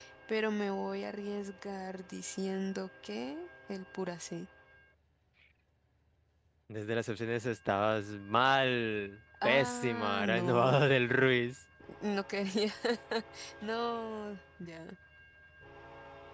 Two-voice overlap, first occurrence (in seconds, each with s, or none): 9.4 s